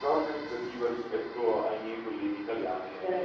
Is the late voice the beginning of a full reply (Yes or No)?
No